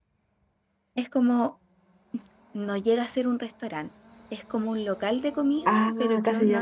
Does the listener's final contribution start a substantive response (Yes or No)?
Yes